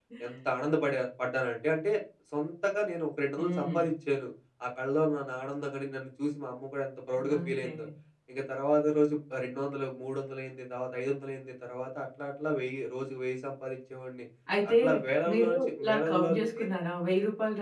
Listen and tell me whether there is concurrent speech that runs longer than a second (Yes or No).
Yes